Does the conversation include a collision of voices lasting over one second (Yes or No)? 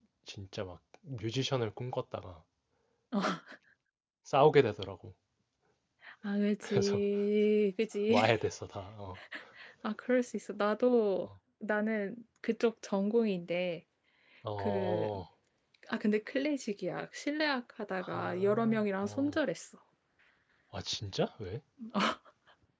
Yes